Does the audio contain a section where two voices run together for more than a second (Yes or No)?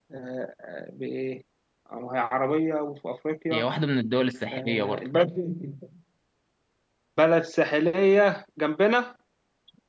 No